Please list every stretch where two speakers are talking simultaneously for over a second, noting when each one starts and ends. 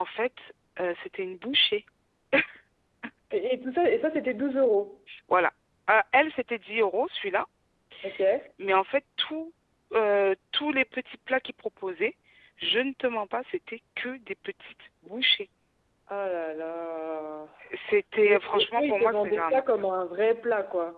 18.2-19.6

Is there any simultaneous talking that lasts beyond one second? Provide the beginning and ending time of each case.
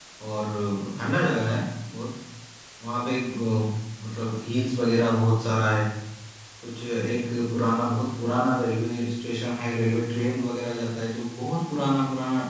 none

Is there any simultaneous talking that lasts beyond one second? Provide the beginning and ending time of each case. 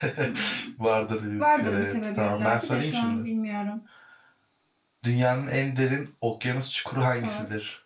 1.4-3.3

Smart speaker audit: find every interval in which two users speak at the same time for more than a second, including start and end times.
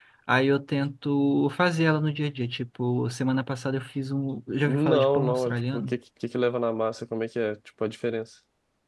4.7-5.9

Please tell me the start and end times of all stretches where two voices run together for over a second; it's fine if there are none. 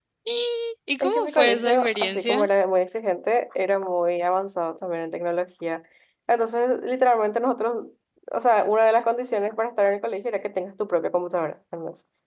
1.0-2.5

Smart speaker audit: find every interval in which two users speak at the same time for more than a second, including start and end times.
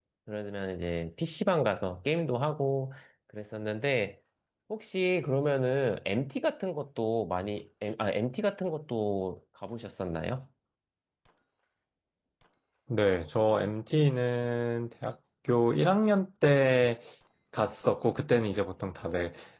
none

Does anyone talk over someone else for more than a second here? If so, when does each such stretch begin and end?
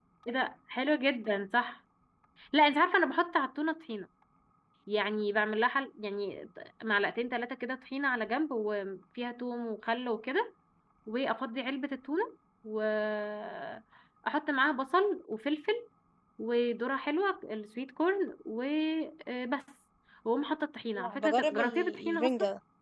20.9-22.3

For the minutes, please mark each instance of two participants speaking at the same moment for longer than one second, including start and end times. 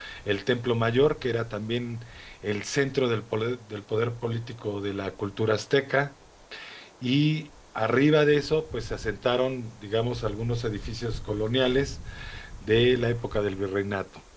none

